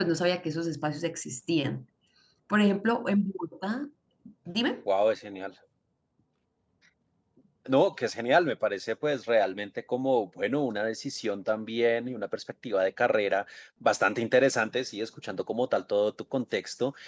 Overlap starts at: none

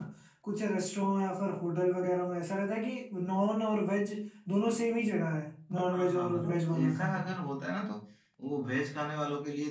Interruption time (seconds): 5.9 s

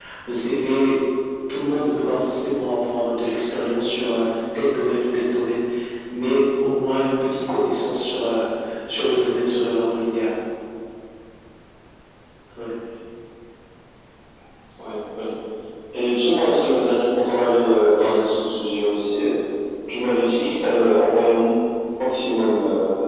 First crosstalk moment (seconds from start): none

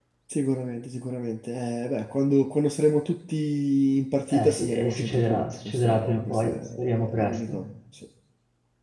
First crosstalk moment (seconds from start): 4.3 s

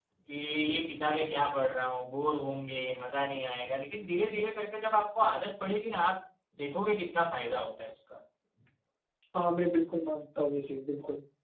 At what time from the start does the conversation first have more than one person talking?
none

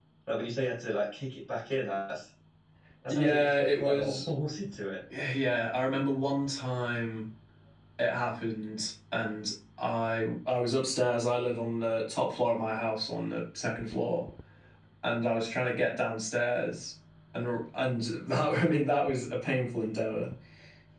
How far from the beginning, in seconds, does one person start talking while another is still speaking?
3.1 s

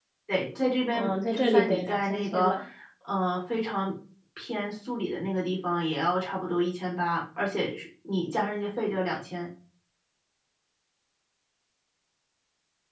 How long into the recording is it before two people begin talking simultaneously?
0.9 s

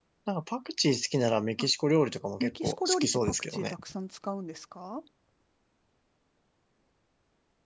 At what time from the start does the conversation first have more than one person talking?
2.4 s

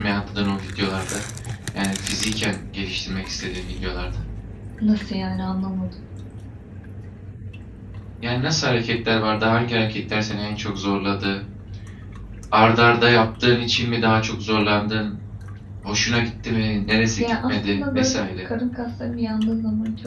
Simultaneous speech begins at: 17.2 s

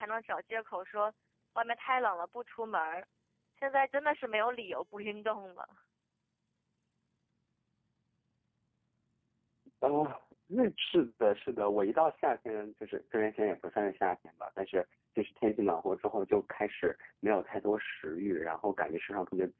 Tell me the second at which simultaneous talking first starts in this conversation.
none

